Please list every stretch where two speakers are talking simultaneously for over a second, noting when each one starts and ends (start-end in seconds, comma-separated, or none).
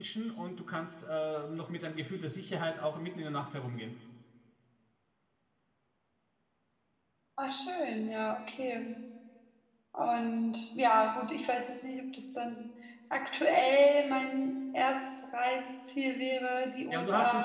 none